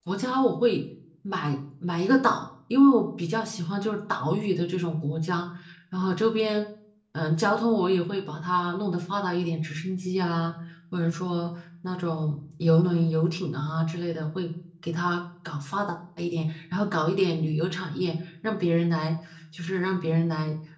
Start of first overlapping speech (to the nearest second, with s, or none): none